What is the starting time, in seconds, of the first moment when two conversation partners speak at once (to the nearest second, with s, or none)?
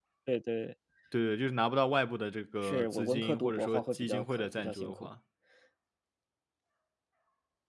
3 s